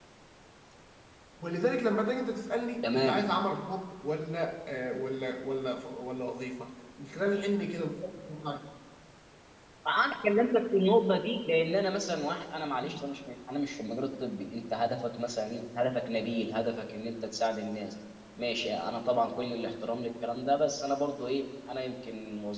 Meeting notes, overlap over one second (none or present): none